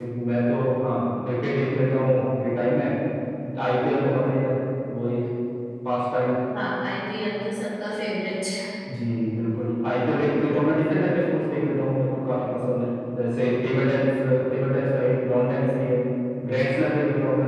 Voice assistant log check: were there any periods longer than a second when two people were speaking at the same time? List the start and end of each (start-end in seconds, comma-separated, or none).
none